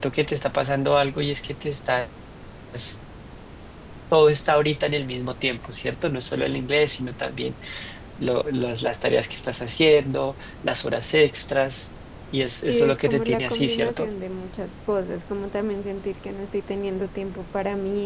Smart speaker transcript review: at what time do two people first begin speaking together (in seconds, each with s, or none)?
12.7 s